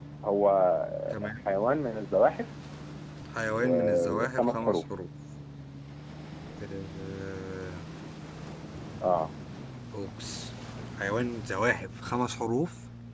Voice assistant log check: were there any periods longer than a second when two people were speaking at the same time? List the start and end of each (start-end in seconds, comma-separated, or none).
3.5-4.8